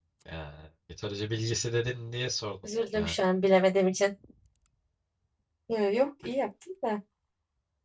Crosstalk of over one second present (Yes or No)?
No